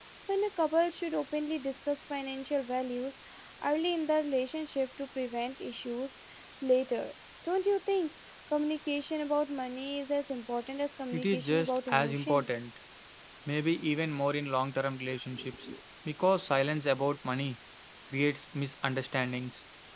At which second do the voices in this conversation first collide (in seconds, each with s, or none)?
11.1 s